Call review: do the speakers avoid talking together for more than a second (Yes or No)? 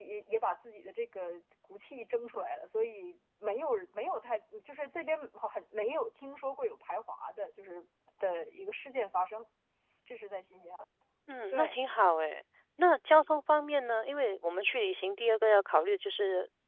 Yes